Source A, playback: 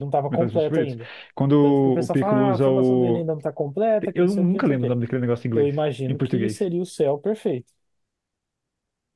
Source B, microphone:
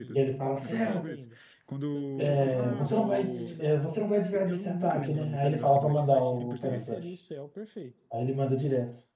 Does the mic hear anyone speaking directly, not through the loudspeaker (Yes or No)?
Yes